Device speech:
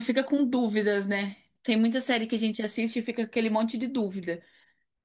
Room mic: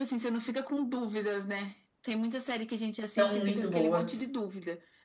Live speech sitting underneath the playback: No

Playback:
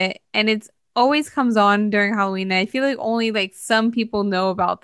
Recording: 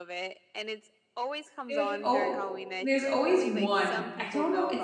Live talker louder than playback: Yes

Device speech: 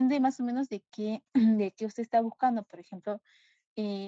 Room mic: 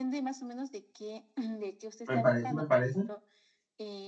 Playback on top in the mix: No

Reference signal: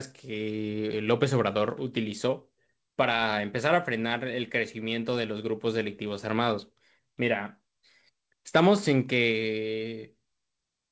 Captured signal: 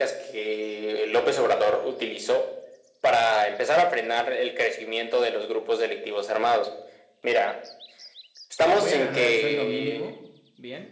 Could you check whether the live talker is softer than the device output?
Yes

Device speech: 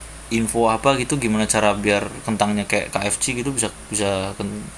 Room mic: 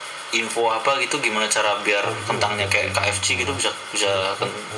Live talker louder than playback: No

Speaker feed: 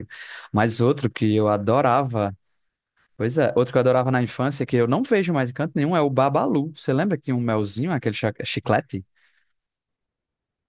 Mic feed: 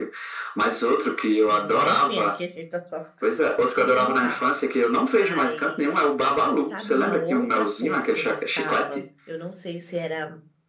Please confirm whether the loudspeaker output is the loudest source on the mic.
Yes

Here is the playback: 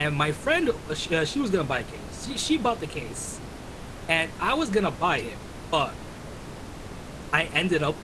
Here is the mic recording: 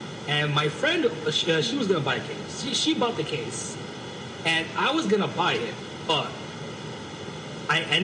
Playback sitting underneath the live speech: No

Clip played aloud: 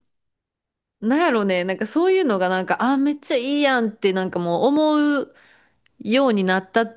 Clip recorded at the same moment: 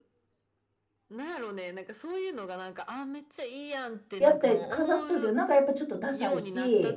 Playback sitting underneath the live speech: Yes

